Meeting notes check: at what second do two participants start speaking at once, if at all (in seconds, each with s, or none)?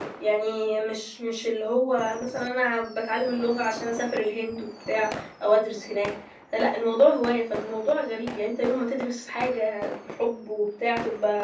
none